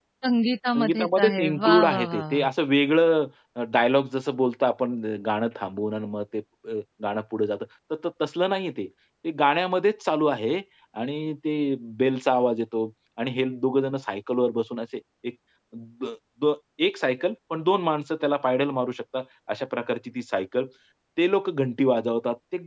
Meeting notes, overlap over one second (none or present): present